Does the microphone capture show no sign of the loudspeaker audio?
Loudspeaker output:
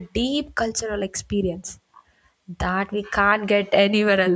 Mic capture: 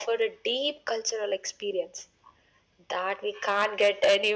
No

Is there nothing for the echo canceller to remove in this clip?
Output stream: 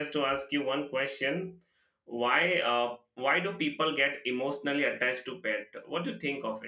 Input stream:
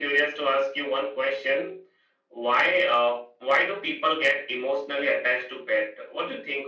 No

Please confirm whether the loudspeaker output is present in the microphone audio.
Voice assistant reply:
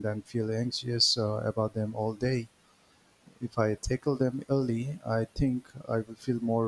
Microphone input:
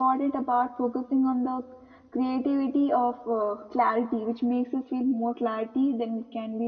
No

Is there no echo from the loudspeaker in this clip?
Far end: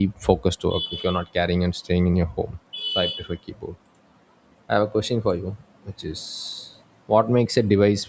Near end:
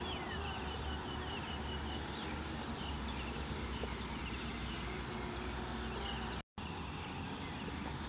Yes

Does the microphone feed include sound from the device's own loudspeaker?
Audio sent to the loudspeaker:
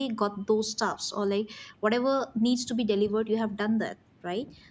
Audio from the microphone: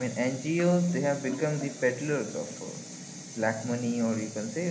No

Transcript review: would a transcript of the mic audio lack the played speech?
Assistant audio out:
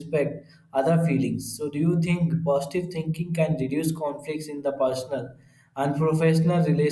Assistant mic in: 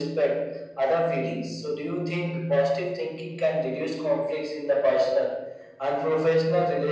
No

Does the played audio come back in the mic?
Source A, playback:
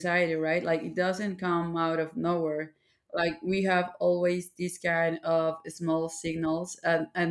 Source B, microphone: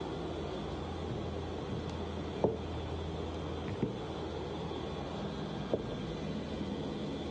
No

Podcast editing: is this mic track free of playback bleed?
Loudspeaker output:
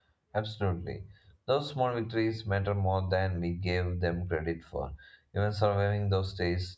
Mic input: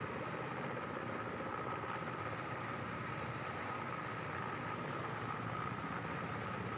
Yes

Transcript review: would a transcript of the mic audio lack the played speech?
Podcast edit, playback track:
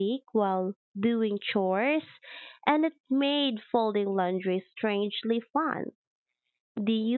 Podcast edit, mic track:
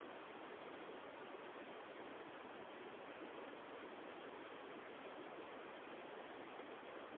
Yes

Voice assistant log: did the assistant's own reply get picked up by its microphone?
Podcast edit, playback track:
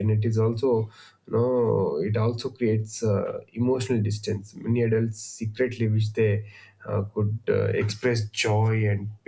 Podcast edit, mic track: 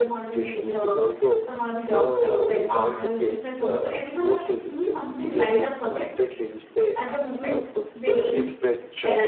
Yes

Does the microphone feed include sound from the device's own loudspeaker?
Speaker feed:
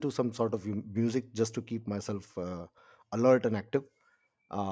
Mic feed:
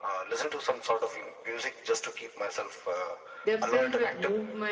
Yes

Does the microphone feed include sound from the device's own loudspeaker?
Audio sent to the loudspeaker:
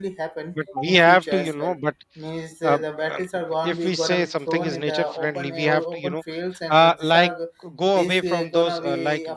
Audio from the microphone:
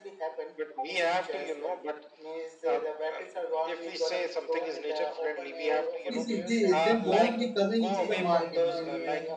Yes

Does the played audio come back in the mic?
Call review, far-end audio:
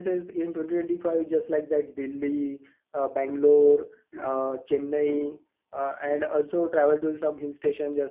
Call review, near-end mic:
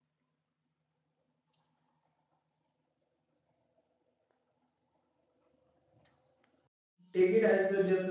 No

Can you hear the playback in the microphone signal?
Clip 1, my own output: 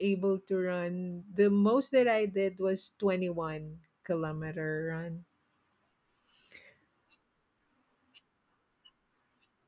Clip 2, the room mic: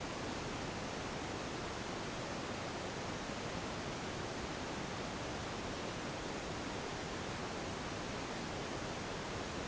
No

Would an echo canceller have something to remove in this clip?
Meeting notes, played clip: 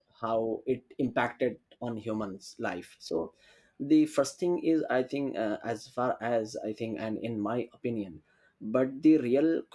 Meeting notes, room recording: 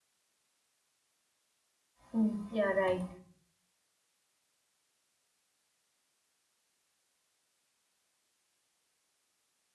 No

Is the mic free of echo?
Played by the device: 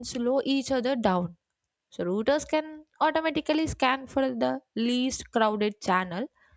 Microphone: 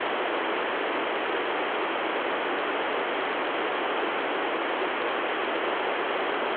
Yes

